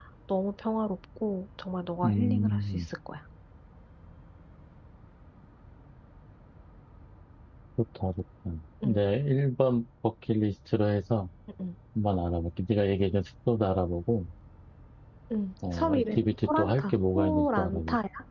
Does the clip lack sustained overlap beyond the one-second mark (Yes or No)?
No